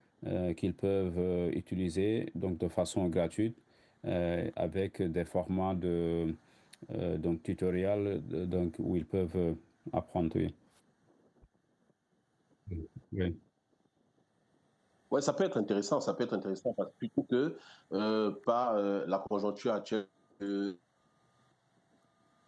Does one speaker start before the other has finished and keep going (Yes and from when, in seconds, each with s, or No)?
No